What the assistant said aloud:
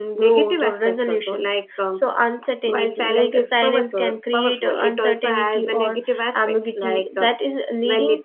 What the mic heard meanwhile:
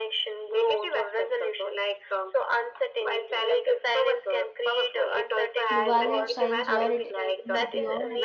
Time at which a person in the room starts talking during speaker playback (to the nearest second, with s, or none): 6 s